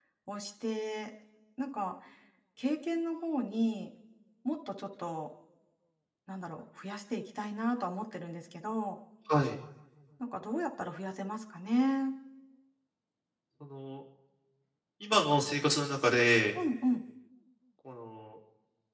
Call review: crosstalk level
none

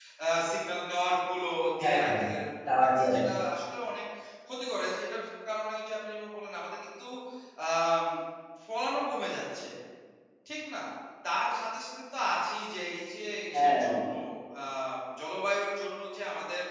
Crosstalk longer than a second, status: none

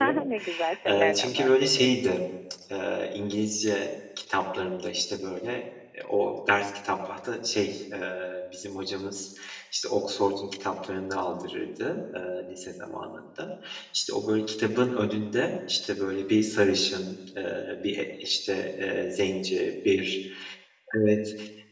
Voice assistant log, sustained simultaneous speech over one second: present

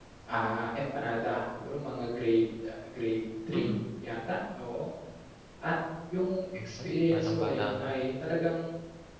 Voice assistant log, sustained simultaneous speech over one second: present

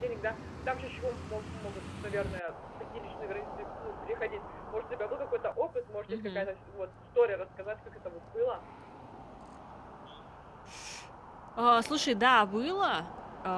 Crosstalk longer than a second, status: none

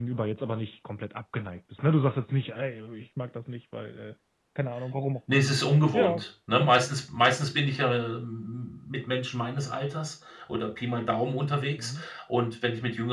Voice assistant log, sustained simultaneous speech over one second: none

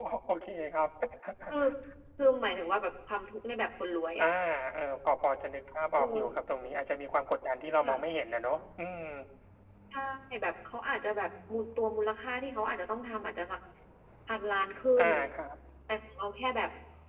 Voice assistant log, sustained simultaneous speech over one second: none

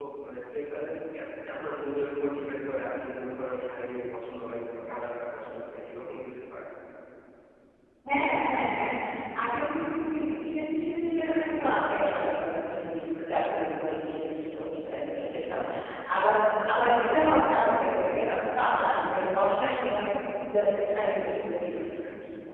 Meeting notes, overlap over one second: none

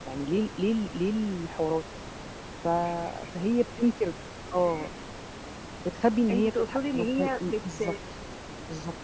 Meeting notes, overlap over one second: present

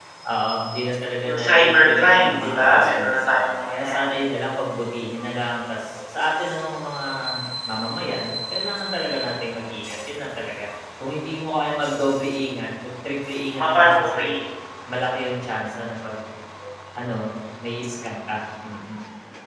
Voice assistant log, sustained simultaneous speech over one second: present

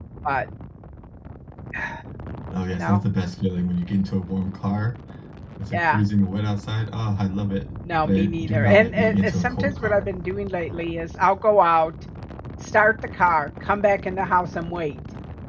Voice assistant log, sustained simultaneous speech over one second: present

